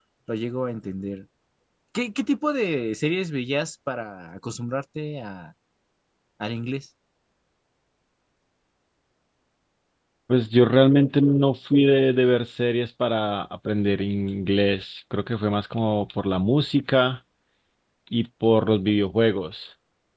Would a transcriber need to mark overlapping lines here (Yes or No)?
No